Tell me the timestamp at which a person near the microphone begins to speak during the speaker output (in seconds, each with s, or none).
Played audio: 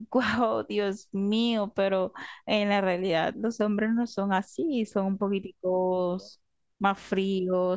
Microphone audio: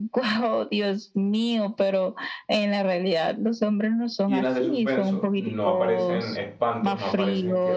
4.3 s